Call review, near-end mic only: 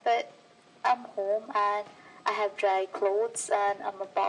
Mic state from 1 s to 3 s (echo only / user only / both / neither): echo only